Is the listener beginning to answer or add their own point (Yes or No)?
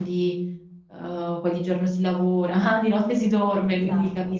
No